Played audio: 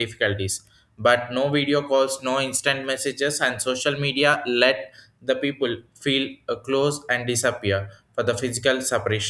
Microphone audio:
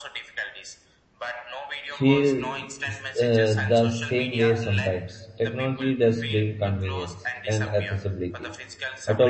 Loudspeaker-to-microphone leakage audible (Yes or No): Yes